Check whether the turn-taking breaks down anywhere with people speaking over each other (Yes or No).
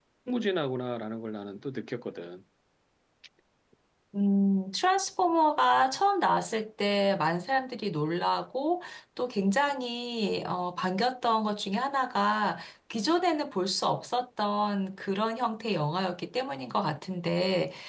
No